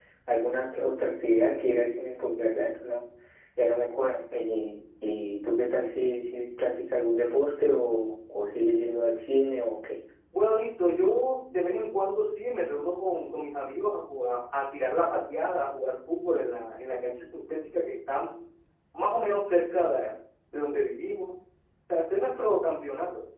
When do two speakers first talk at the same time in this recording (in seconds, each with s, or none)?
none